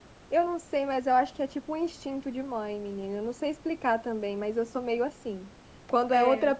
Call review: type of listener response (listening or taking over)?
listening